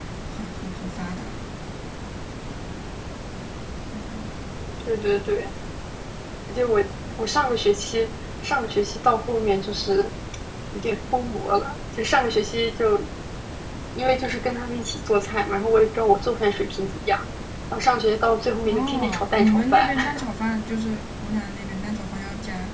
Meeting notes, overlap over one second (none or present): present